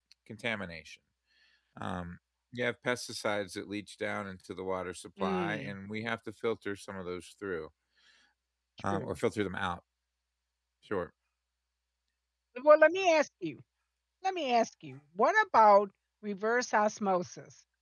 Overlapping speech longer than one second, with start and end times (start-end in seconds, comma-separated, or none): none